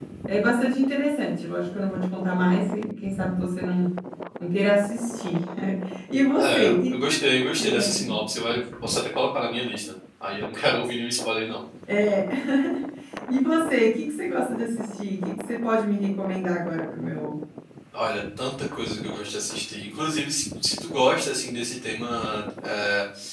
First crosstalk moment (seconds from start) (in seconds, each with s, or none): 6.4 s